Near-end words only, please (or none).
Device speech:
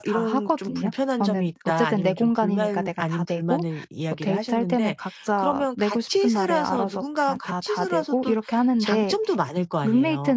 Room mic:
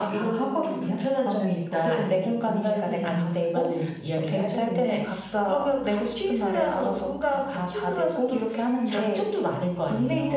음음.